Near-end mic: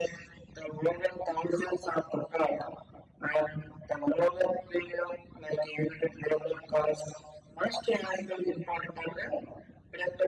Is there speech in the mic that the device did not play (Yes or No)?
No